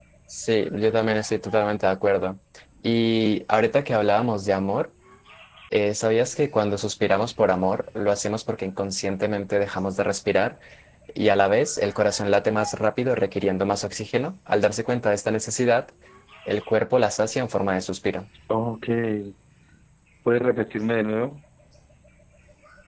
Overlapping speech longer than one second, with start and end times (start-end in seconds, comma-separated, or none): none